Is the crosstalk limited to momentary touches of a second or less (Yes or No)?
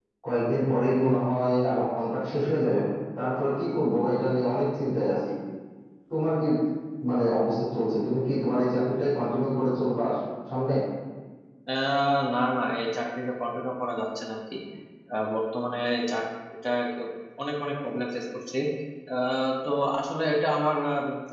Yes